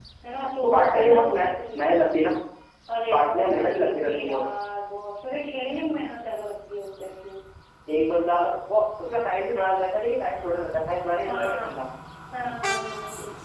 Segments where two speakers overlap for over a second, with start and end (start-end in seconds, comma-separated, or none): 0.6-1.9, 3.1-4.4